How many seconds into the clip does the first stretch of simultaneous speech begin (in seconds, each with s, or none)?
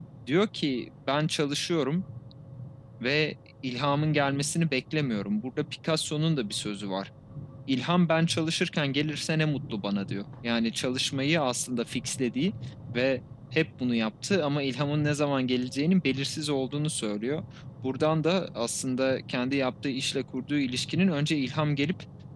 none